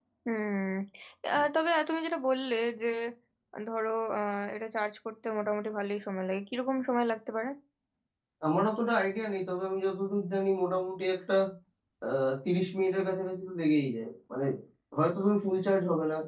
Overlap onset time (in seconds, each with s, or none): none